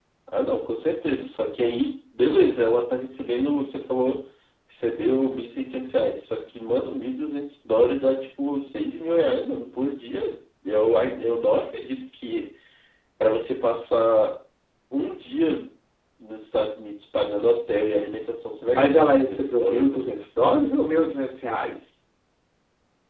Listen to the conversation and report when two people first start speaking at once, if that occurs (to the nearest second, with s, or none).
19 s